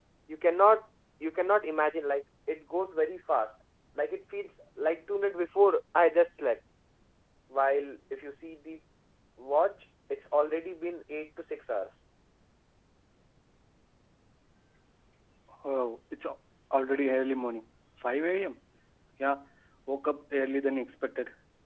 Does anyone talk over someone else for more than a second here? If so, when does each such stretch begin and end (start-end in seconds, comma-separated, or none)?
none